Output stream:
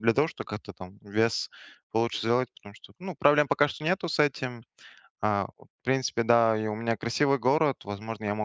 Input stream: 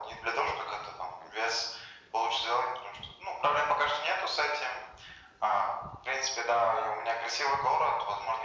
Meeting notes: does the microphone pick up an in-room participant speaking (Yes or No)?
No